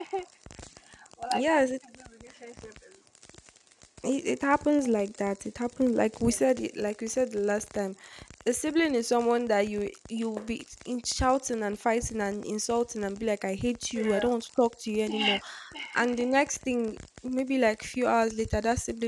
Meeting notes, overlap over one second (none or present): none